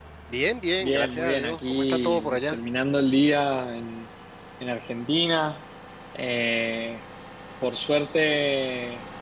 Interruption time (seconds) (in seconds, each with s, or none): 0.8 s